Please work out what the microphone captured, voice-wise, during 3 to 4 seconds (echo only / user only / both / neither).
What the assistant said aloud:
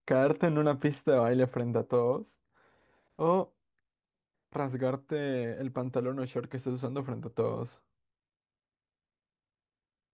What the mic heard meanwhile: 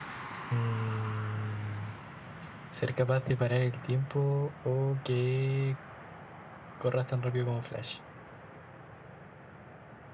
user only